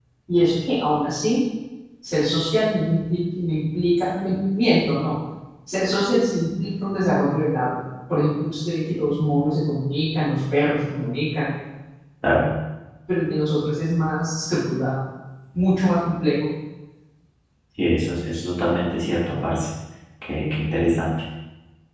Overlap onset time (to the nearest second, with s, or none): none